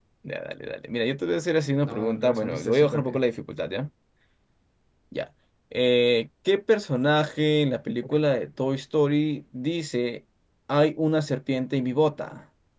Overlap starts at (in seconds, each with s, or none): 1.9 s